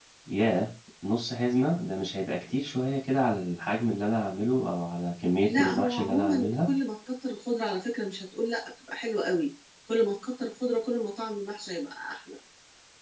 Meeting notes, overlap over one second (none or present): present